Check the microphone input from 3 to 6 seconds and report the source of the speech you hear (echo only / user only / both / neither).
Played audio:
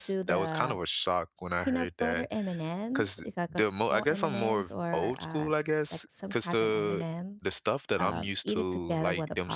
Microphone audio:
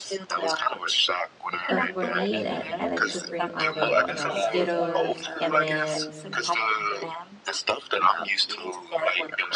both